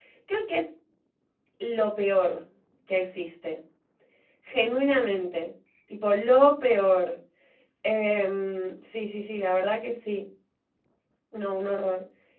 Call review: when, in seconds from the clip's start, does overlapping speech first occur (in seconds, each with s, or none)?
none